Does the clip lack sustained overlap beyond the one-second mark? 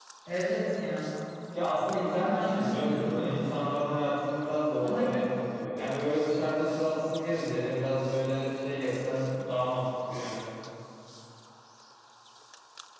No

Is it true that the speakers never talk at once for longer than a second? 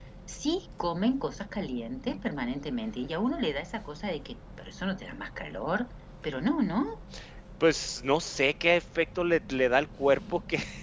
Yes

